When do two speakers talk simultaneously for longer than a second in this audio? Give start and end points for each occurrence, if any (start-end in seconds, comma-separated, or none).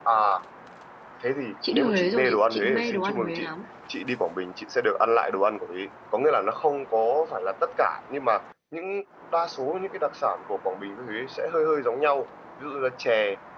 1.7-3.5